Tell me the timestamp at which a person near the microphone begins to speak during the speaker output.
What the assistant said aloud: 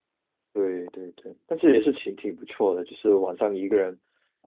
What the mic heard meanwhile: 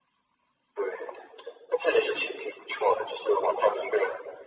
none

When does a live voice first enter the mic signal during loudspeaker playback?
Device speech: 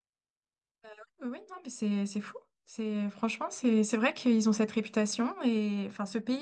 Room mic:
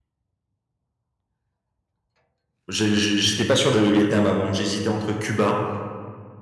3 s

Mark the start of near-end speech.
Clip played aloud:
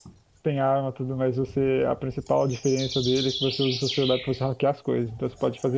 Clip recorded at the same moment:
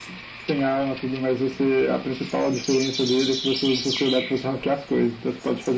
none

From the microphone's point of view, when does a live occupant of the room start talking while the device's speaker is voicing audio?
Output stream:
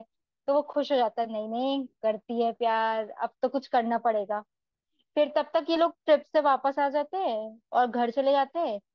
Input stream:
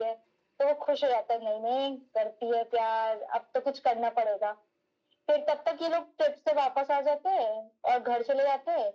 none

